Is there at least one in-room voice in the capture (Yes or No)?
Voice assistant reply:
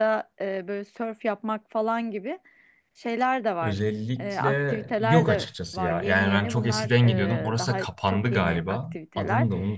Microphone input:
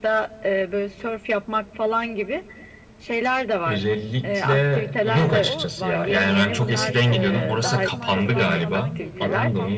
Yes